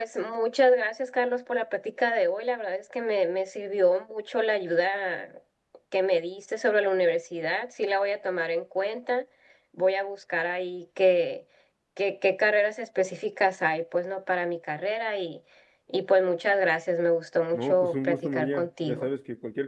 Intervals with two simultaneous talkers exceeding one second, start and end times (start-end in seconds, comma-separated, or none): 17.5-19.1